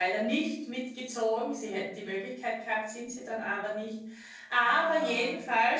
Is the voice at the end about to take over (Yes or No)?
No